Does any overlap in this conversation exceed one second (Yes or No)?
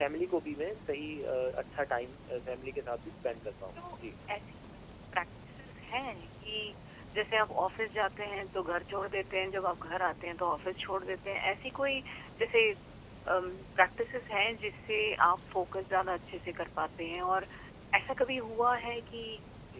No